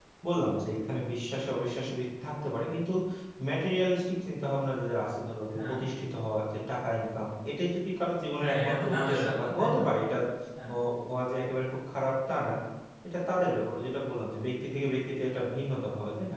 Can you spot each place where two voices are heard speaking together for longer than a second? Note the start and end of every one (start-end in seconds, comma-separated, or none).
8.4-9.8